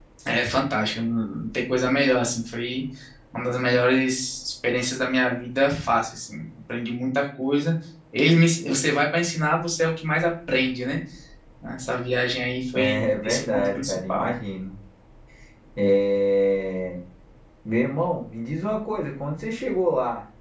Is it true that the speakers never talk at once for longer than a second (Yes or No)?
No